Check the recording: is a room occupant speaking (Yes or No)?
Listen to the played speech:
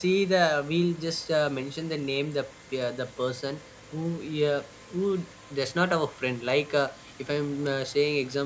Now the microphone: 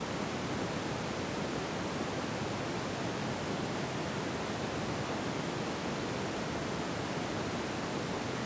No